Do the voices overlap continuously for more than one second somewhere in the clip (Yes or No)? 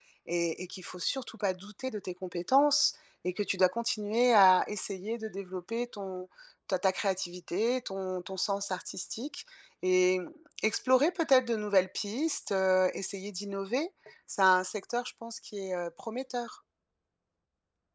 No